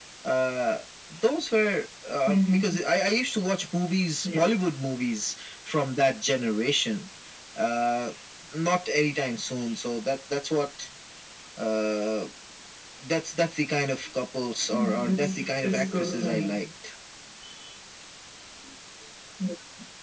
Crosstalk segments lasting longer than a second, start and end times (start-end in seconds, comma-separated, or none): 14.7-16.6